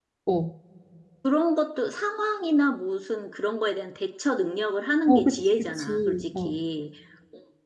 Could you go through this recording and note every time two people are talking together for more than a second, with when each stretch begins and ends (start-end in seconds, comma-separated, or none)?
5.1-6.5